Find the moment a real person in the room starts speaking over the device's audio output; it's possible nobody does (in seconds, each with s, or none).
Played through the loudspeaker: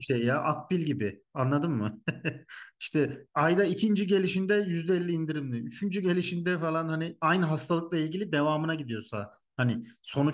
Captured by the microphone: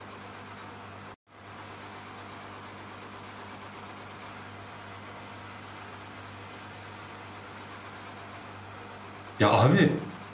9.4 s